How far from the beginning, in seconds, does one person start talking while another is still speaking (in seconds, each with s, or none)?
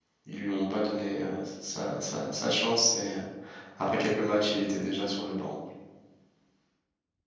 none